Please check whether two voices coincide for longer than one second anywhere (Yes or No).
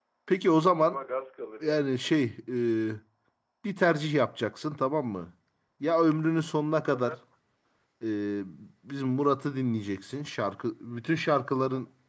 No